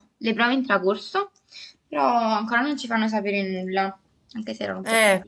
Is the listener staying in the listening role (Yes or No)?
No